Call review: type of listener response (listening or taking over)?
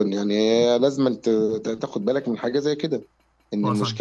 listening